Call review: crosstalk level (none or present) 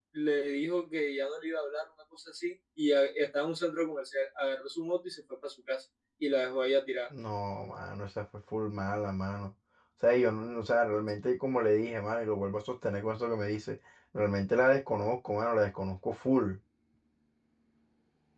none